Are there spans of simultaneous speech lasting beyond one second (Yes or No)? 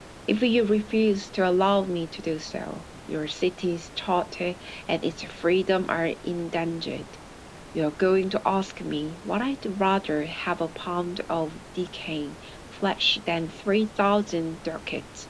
No